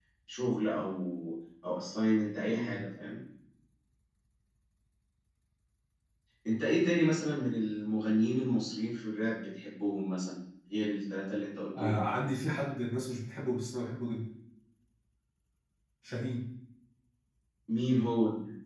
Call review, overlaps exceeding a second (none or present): none